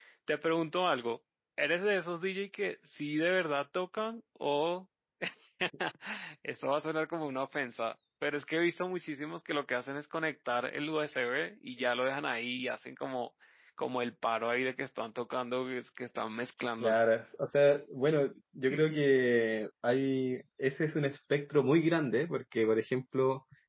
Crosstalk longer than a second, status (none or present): none